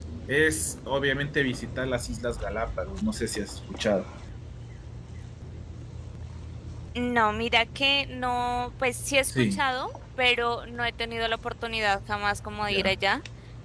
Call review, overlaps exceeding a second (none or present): none